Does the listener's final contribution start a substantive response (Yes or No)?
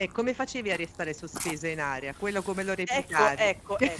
Yes